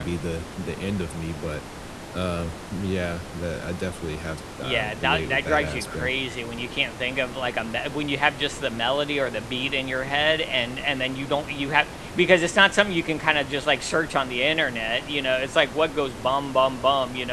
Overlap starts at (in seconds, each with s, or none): 4.6 s